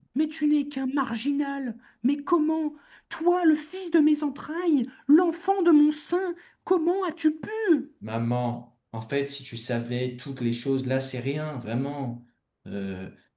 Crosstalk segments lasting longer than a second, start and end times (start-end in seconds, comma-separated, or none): none